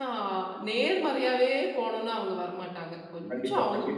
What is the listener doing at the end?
taking over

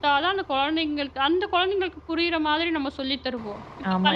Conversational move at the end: taking over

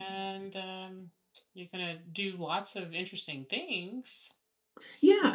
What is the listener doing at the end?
taking over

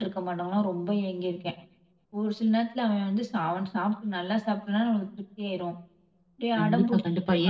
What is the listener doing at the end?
taking over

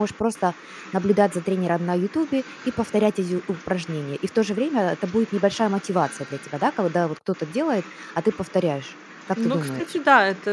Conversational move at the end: taking over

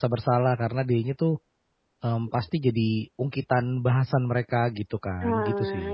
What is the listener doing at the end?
taking over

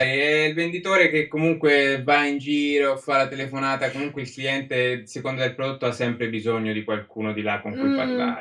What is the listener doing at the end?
taking over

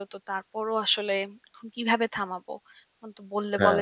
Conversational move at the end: listening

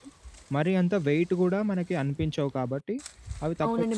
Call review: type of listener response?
taking over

